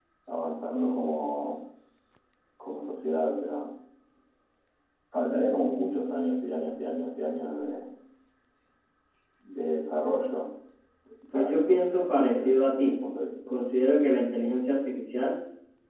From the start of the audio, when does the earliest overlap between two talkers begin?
11.3 s

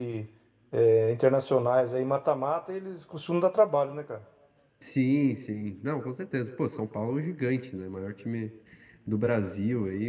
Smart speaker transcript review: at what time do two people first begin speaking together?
none

